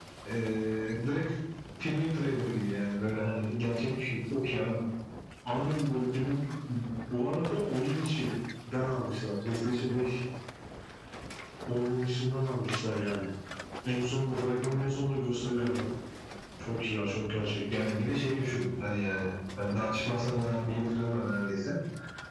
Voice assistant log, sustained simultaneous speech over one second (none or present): none